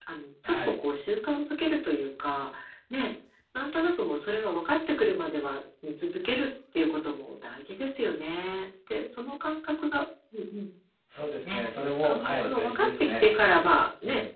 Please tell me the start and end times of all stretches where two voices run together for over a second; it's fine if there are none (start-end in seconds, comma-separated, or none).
12.0-13.2